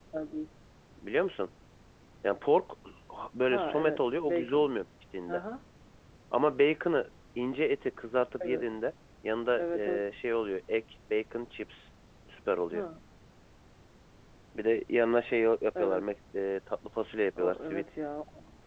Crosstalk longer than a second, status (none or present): present